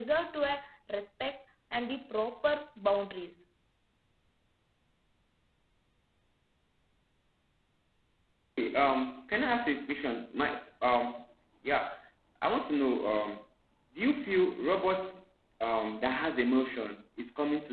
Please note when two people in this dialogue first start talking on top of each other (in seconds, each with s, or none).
none